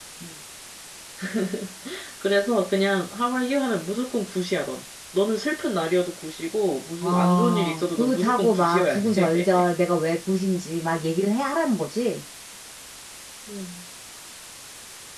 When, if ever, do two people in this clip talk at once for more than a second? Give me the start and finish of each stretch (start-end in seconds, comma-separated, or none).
7.0-9.6